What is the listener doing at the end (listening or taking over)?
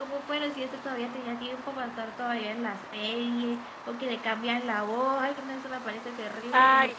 taking over